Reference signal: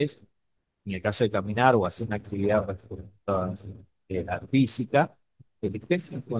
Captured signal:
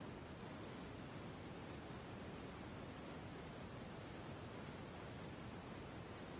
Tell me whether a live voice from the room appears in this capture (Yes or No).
No